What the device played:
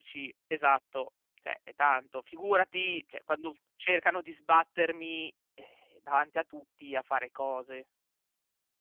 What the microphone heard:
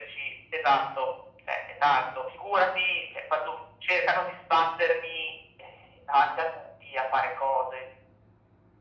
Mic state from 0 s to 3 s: echo only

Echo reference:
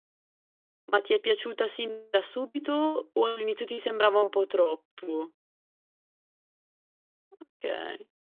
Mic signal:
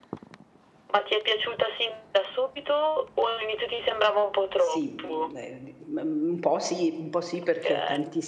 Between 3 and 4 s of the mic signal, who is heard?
echo only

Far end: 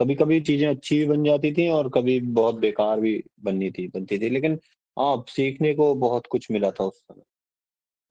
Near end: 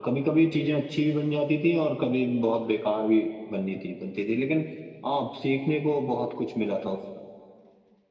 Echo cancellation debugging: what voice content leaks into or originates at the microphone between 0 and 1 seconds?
echo only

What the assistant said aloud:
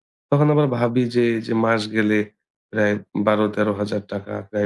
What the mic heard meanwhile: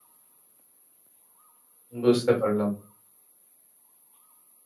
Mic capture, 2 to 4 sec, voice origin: user only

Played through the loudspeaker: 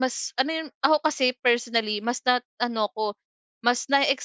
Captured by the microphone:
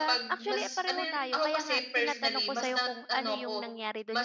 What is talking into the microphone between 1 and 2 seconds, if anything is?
both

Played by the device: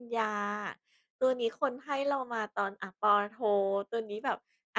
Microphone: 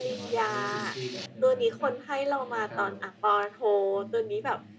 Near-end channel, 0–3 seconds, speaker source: both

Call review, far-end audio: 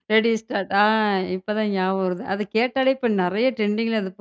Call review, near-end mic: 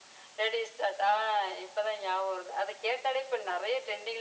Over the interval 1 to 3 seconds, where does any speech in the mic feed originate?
echo only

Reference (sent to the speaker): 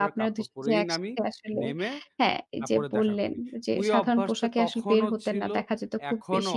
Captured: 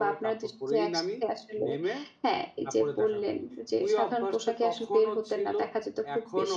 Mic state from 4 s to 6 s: echo only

